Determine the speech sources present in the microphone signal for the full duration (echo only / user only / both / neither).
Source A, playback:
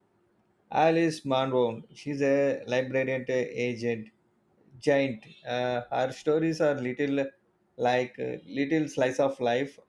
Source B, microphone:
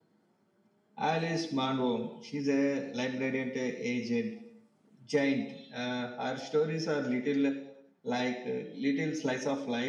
echo only